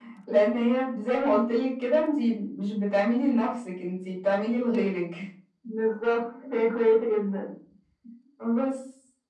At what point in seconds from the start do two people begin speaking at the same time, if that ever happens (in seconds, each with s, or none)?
none